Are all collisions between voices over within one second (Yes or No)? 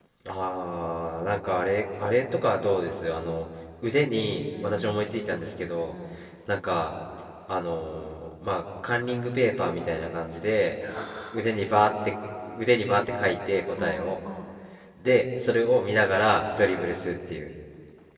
Yes